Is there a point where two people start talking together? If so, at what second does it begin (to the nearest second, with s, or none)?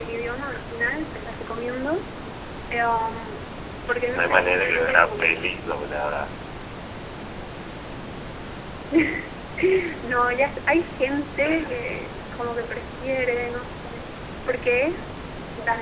4 s